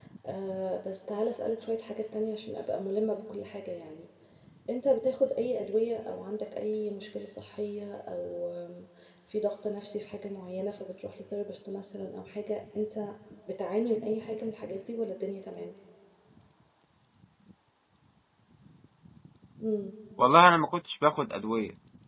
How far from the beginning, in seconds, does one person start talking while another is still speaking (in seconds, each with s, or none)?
none